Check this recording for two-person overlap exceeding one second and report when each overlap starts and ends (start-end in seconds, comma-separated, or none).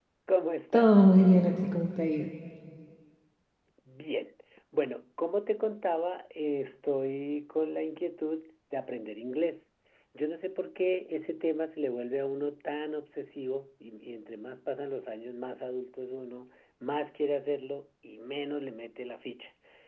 none